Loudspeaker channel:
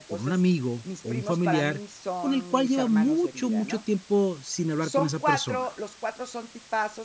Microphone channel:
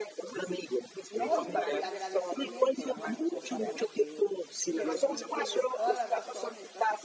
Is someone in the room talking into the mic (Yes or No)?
Yes